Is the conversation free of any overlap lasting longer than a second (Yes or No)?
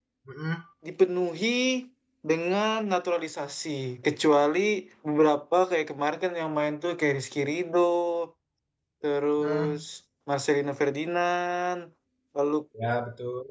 Yes